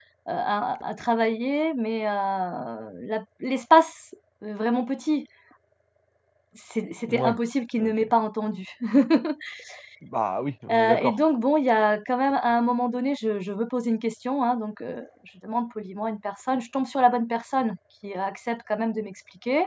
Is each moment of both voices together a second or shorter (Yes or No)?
Yes